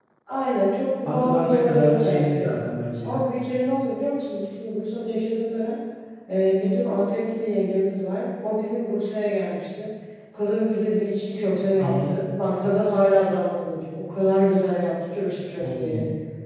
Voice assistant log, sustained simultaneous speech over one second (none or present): present